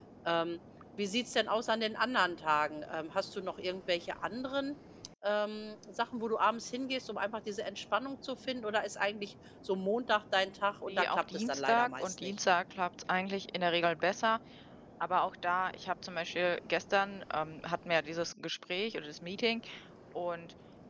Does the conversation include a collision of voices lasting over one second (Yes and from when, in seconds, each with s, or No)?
Yes, from 10.9 s